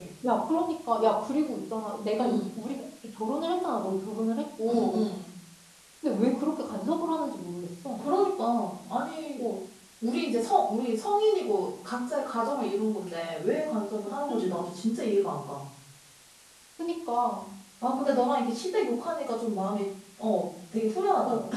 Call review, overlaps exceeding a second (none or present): none